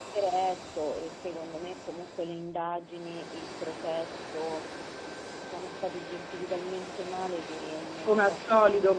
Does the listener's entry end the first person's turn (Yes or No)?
Yes